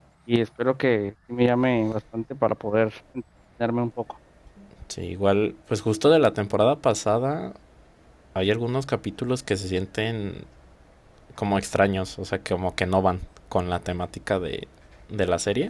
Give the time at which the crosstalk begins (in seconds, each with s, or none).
none